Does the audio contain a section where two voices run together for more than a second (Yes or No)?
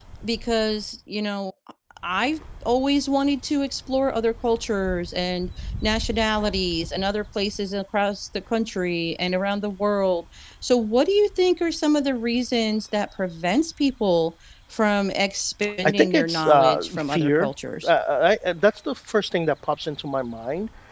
Yes